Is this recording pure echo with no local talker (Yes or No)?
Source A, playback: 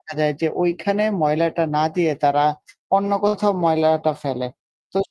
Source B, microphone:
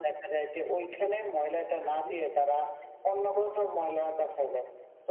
No